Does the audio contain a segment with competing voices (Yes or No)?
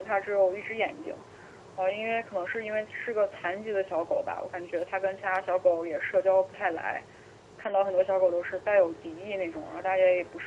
No